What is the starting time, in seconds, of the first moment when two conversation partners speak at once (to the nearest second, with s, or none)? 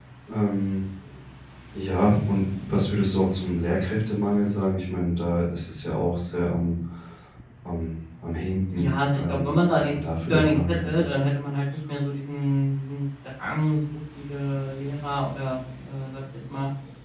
9 s